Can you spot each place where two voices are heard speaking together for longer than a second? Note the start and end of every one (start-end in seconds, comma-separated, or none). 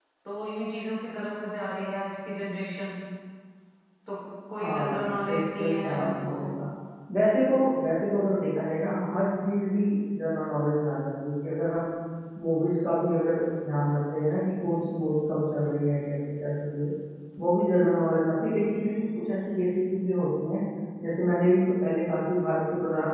4.5-6.4